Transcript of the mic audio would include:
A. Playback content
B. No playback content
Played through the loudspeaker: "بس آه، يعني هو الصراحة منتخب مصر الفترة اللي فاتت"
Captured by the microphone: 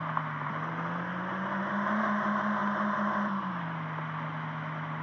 B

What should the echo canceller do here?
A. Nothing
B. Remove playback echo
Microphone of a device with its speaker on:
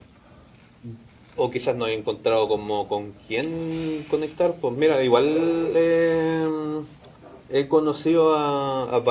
A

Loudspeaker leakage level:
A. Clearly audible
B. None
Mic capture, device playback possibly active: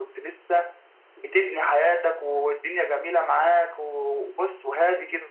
A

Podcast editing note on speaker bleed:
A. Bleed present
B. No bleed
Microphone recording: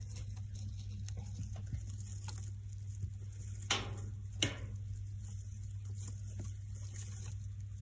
B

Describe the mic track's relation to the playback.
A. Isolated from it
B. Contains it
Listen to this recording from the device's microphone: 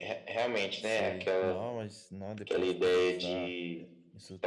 B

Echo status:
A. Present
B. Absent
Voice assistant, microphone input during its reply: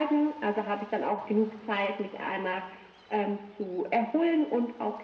A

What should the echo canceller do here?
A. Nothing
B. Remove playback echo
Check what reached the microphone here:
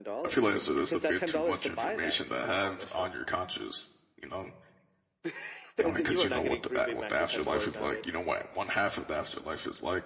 B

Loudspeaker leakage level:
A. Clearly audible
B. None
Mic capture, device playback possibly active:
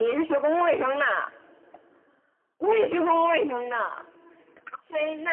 A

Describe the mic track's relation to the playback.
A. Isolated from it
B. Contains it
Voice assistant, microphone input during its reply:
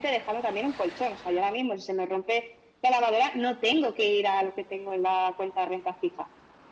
B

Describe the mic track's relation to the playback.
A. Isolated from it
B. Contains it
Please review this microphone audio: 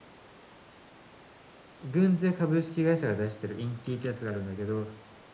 A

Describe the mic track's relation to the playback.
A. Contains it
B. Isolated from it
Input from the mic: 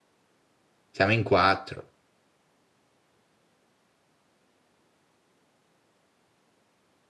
B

